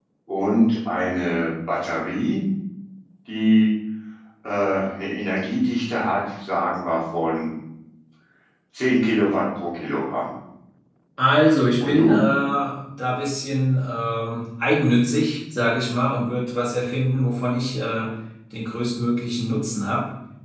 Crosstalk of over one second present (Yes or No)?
No